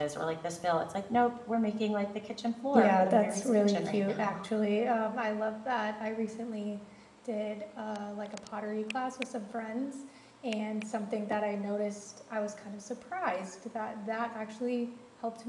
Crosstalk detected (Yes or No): Yes